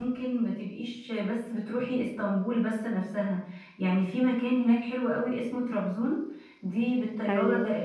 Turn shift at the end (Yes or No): No